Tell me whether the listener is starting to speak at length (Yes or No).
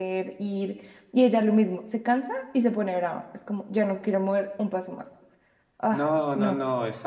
Yes